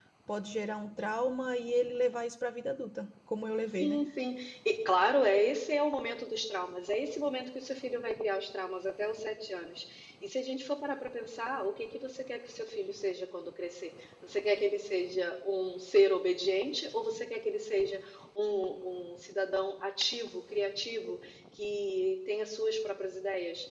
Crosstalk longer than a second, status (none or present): none